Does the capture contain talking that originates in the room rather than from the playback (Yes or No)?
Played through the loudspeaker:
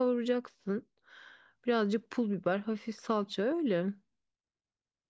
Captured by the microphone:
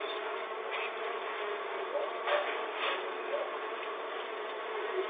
No